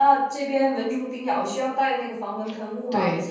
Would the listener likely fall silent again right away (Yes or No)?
No